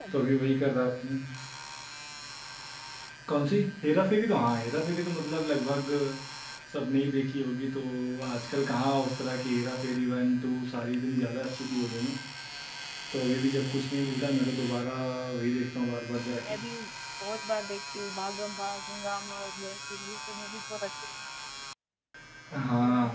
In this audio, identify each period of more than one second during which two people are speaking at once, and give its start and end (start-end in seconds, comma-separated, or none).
none